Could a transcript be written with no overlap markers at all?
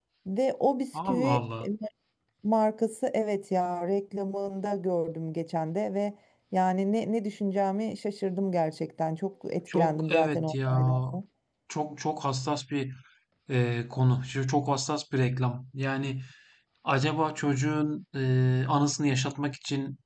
No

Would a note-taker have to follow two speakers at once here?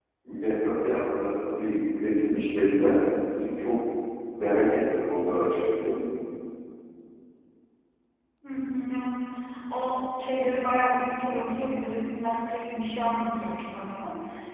No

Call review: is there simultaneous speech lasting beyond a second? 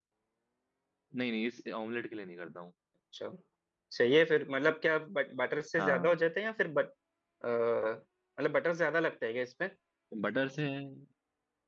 No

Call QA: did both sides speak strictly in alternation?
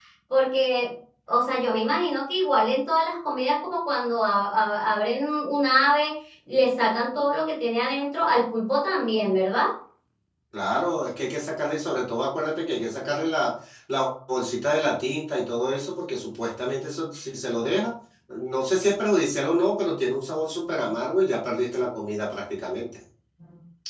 Yes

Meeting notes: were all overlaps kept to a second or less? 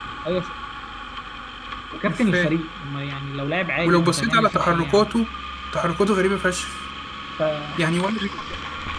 No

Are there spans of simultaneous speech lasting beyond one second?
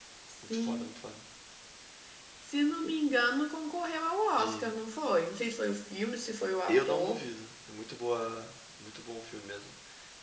No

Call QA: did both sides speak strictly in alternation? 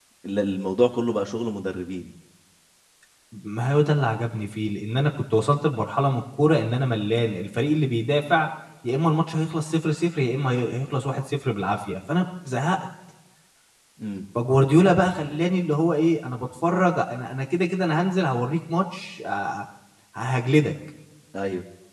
Yes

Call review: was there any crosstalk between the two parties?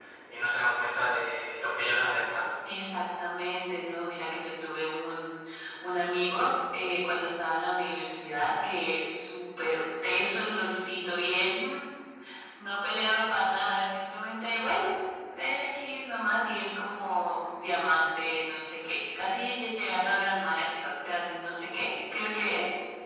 No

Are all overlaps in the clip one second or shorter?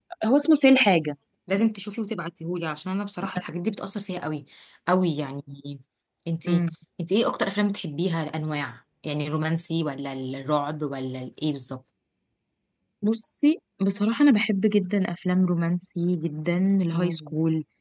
Yes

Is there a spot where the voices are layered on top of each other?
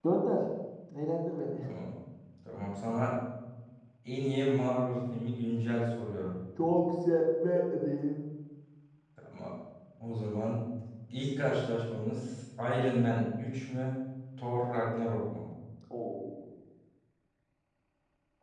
No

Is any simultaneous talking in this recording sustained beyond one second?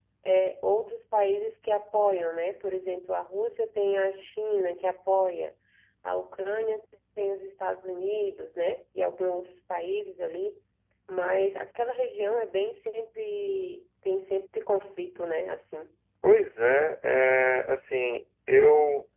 No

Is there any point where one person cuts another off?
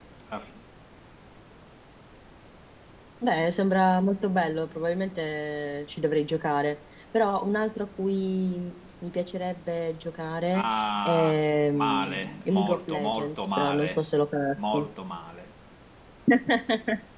Yes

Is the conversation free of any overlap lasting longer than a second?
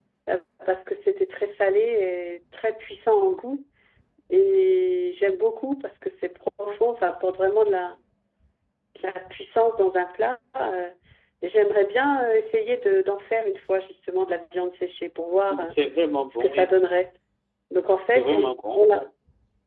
Yes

